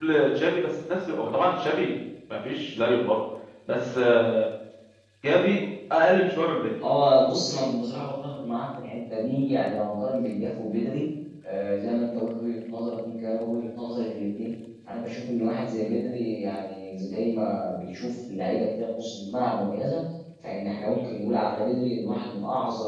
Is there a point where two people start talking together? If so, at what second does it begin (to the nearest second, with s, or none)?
none